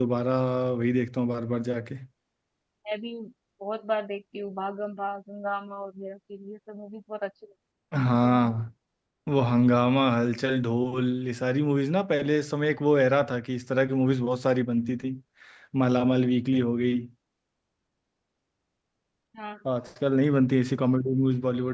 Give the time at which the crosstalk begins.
none

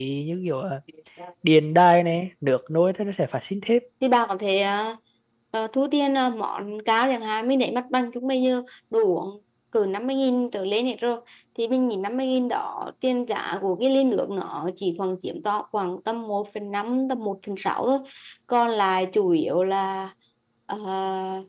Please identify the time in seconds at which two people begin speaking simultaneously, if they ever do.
none

